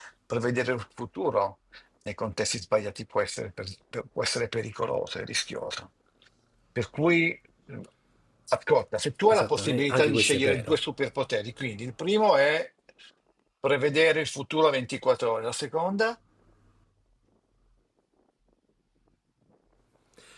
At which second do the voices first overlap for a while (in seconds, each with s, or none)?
9.3 s